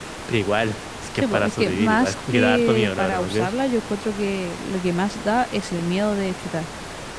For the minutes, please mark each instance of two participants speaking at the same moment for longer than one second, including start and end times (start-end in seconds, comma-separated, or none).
1.2-3.5